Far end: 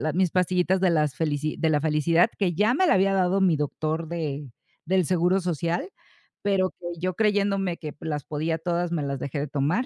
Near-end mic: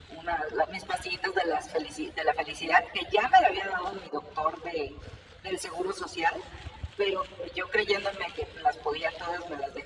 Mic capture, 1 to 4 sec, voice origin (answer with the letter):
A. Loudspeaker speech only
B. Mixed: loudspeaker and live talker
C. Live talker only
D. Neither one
A